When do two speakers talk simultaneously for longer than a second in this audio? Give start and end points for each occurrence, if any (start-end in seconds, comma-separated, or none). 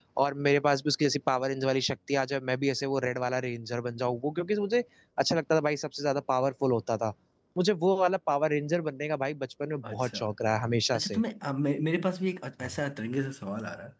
none